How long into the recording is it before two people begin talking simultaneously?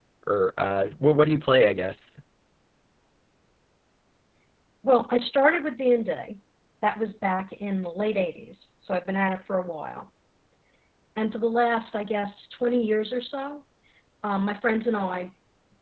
none

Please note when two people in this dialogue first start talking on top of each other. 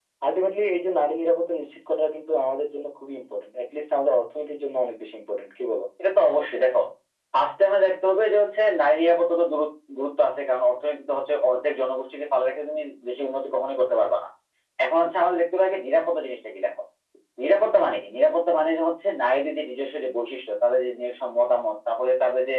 none

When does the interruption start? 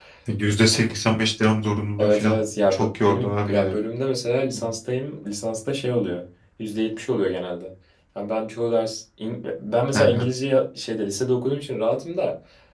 2.0 s

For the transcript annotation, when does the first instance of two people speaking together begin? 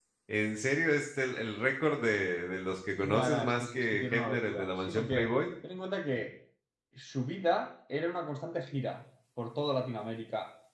3.0 s

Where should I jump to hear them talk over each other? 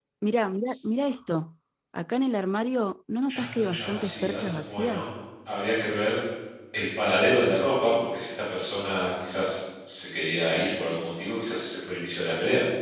3.3 s

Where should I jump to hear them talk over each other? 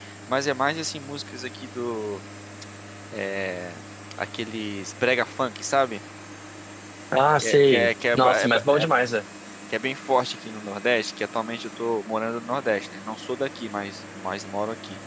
7.4 s

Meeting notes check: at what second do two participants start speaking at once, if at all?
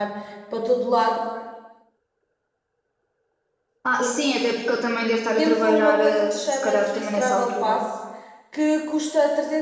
5.4 s

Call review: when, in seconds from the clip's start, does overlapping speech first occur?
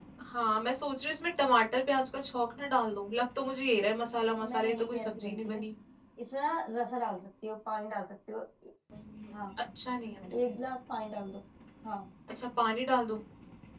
4.4 s

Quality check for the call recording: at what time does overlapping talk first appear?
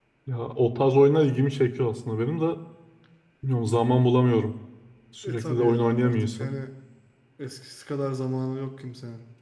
5.2 s

